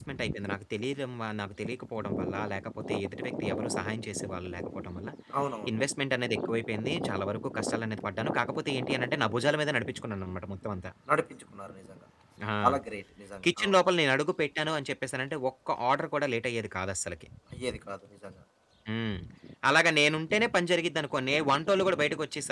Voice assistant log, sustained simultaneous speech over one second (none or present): none